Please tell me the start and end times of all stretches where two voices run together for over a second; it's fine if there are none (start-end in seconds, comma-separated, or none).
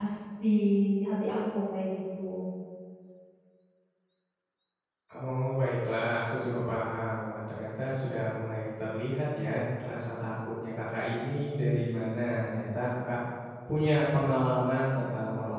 none